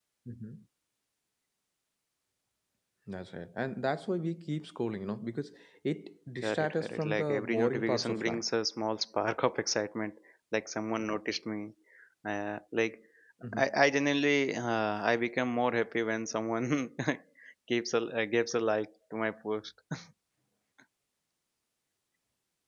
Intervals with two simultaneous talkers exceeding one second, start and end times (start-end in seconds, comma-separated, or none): 6.4-8.4